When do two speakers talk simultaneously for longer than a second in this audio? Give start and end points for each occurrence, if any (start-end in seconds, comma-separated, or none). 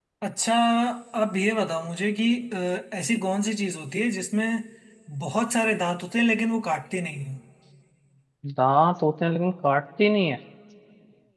none